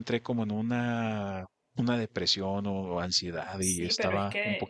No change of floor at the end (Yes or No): No